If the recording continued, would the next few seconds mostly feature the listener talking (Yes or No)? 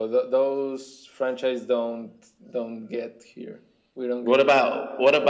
Yes